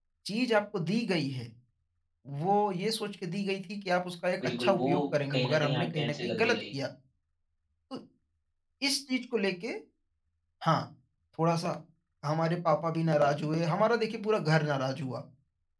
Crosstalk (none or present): present